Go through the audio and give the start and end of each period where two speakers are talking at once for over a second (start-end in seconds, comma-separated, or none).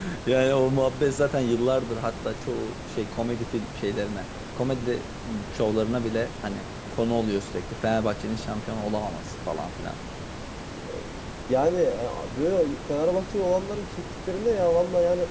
none